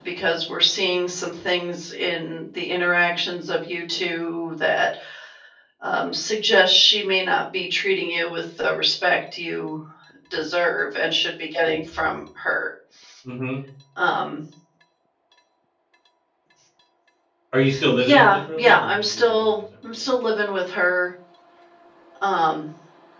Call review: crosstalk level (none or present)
present